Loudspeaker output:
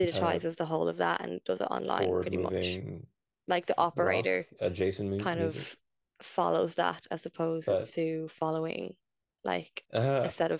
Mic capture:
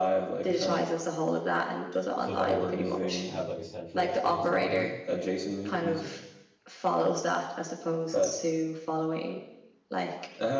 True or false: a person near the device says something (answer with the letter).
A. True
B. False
A